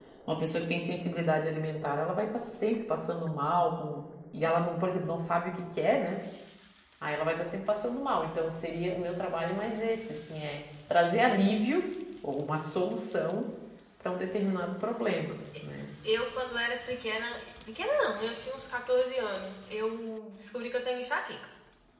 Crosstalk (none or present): none